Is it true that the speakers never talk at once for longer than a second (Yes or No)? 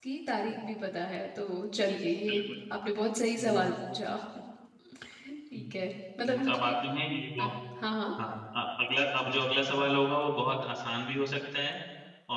Yes